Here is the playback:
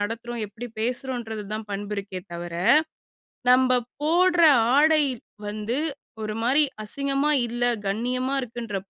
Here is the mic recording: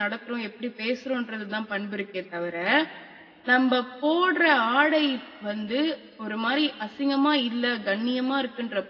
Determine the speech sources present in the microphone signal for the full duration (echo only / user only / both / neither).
echo only